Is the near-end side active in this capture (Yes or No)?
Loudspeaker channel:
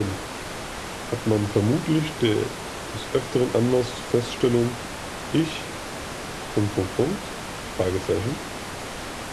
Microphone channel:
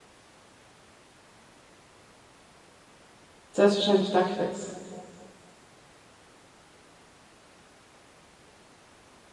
Yes